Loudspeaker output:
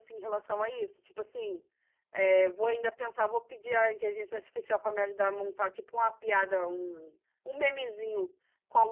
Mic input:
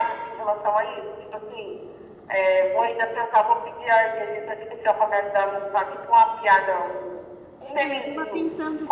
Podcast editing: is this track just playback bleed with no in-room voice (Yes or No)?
No